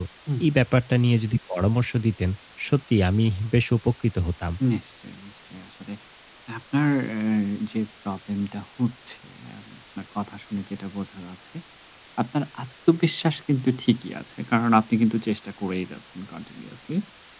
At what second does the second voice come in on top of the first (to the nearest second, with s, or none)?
none